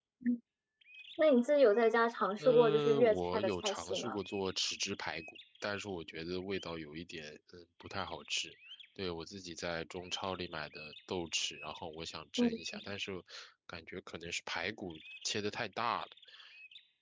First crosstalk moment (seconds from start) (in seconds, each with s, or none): 2.4 s